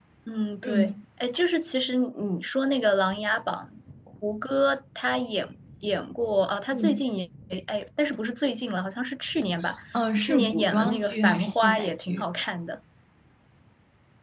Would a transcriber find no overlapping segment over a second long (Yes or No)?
No